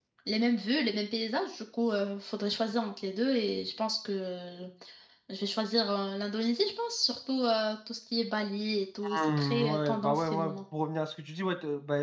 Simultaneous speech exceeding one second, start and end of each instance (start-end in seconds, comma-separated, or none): 9.1-10.6